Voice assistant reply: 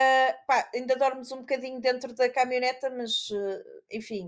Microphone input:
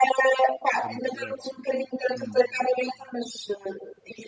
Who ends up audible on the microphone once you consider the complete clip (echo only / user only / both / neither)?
both